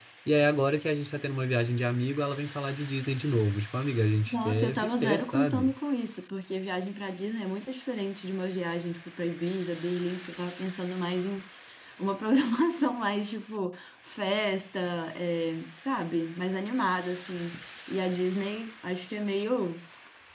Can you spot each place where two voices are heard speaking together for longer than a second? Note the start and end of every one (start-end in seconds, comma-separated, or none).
4.3-5.7